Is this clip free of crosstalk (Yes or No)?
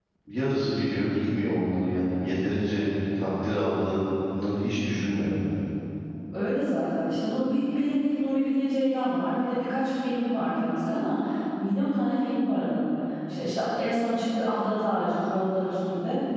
Yes